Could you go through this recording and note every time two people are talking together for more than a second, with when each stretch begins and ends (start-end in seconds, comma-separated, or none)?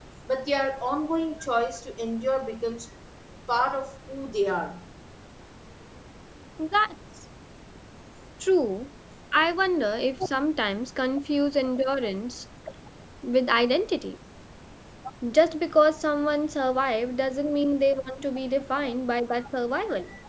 none